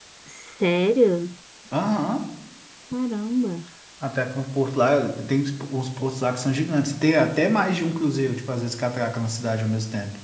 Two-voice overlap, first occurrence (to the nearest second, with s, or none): none